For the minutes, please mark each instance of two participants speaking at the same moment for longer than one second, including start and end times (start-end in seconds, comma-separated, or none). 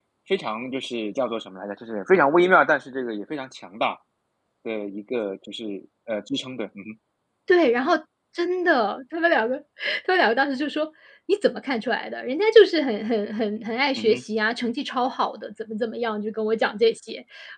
none